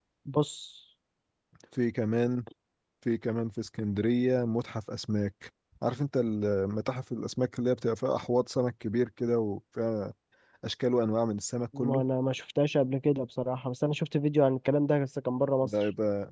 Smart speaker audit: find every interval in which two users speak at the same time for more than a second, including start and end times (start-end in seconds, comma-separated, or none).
none